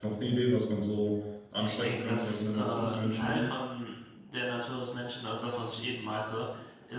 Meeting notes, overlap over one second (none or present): present